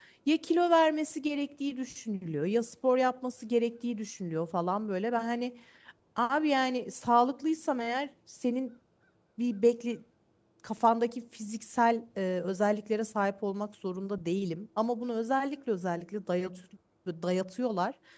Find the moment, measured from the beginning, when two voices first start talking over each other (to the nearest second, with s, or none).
none